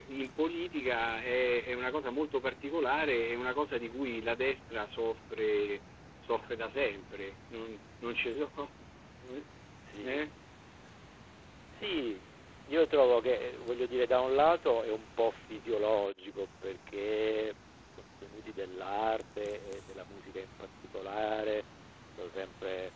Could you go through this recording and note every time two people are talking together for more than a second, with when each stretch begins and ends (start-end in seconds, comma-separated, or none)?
none